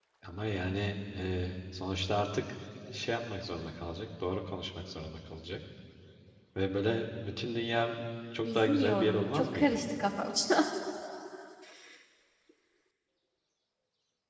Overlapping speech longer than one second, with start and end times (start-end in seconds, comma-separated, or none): 8.4-9.6